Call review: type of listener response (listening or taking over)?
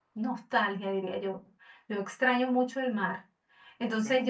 listening